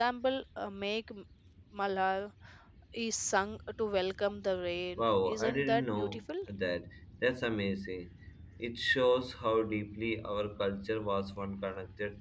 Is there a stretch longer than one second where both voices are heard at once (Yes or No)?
Yes